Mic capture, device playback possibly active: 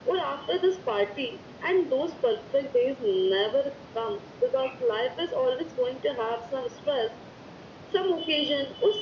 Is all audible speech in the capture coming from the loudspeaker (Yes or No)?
Yes